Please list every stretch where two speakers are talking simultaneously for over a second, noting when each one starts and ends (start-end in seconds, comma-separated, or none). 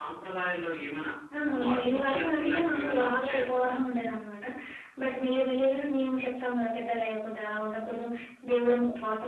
1.6-3.7